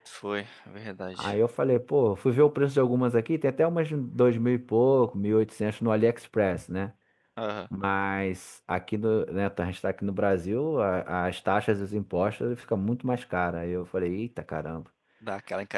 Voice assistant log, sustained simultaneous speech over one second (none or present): none